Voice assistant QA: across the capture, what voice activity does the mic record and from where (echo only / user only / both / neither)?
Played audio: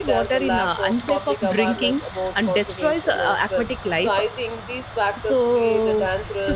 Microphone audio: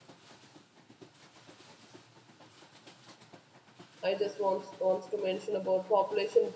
user only